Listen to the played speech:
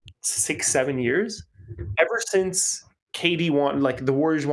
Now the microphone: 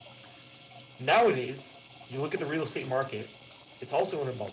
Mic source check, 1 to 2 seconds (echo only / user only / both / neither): user only